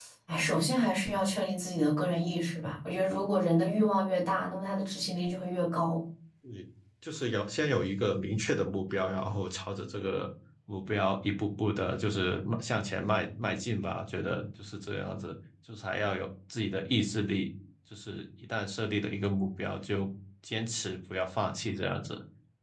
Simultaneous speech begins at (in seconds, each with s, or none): none